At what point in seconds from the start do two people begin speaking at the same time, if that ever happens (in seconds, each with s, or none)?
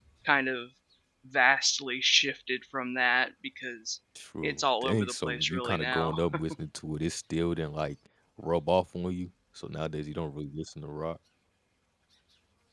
4.4 s